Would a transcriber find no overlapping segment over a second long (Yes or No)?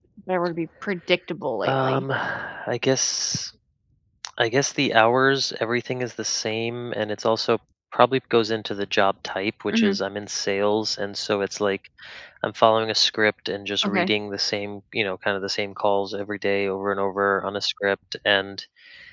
Yes